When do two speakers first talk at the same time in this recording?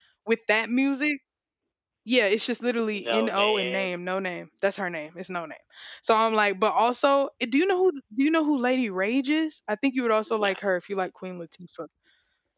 3 s

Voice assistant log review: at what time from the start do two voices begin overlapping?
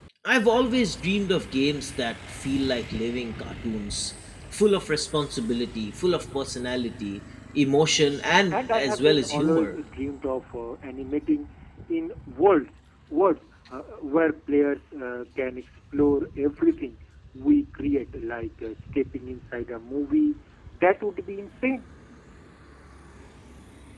9 s

